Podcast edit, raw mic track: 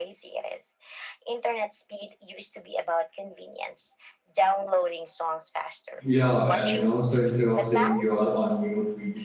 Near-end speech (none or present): present